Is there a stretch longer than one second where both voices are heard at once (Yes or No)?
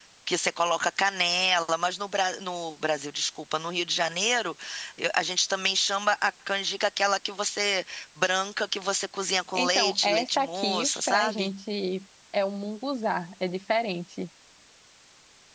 Yes